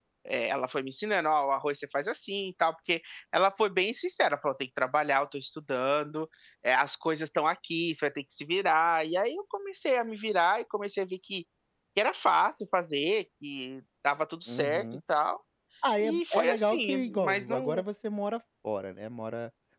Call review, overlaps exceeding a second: present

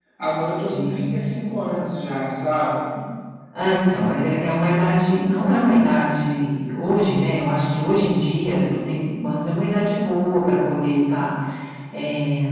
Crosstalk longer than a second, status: none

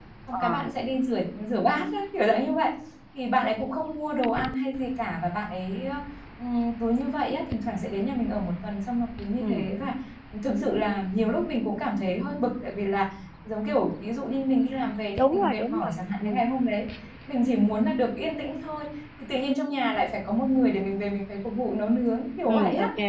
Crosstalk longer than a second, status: present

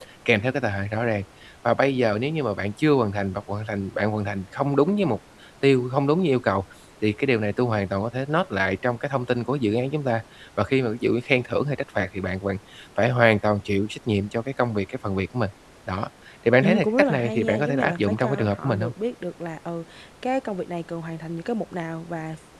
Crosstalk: present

